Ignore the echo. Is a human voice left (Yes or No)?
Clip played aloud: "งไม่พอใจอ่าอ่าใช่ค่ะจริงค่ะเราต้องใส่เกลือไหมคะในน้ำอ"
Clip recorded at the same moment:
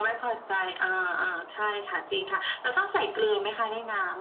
No